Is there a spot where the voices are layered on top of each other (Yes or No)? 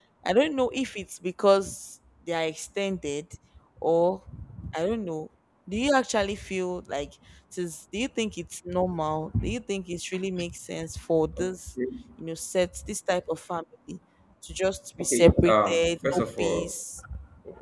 Yes